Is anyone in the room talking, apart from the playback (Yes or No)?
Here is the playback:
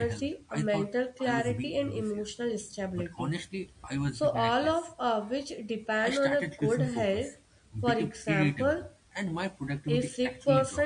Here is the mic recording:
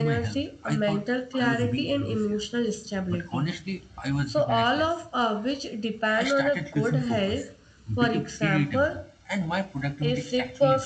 No